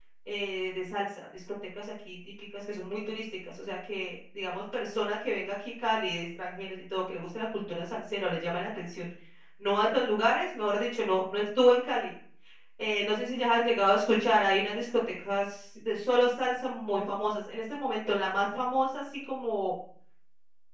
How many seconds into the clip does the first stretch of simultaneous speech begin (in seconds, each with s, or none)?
none